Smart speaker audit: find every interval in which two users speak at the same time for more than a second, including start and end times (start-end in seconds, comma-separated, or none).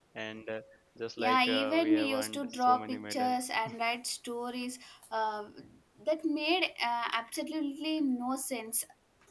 1.2-3.4